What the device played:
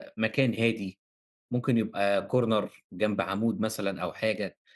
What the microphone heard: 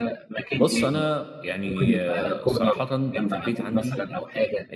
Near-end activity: present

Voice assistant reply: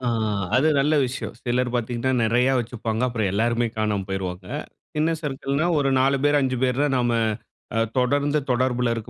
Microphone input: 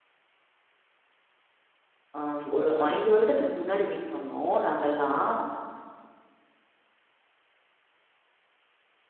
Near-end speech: present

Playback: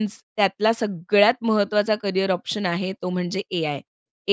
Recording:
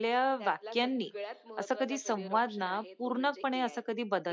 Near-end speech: present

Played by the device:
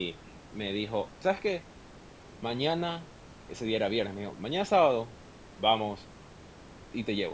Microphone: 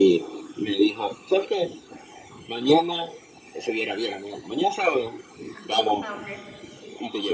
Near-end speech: present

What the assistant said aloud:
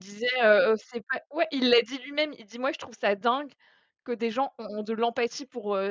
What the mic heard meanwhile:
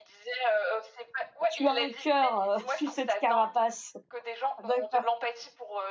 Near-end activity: present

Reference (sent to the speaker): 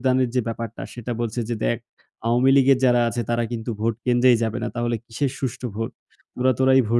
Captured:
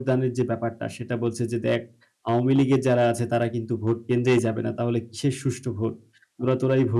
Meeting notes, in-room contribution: none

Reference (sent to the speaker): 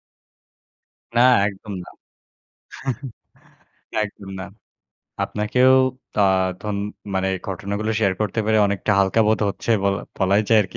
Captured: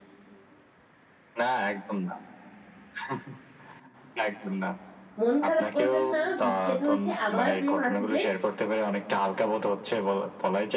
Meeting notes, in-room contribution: present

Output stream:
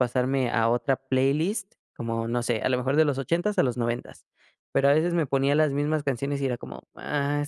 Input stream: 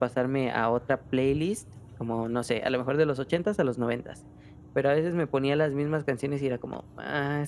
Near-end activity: none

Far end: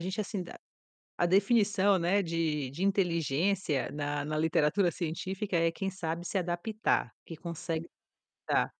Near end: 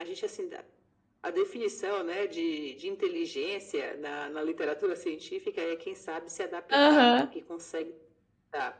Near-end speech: present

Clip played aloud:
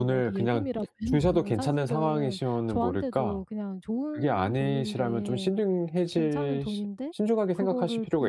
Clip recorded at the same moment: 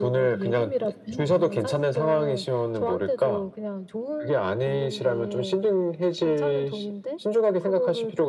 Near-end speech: none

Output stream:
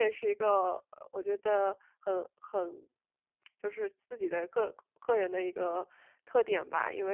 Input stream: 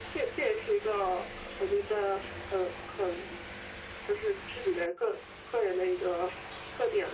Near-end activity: none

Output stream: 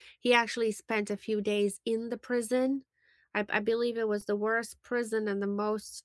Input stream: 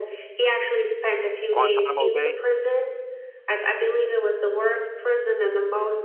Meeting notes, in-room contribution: present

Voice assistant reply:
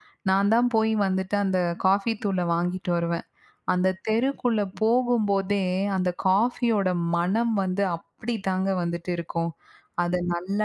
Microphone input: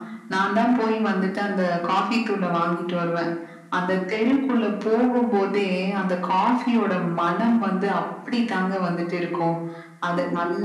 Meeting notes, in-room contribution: none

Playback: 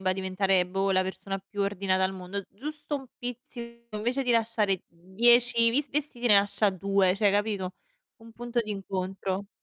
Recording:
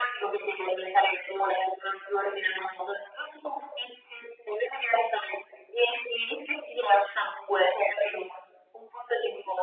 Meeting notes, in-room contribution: none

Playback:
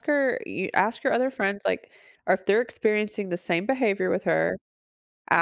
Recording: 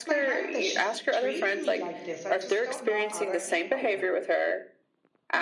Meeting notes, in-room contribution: present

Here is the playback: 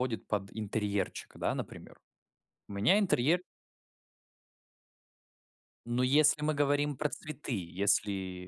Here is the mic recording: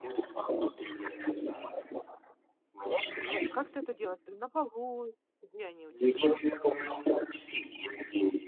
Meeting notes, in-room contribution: present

